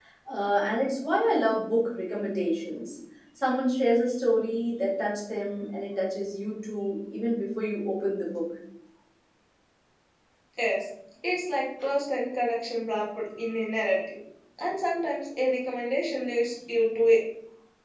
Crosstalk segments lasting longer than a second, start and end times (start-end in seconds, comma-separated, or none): none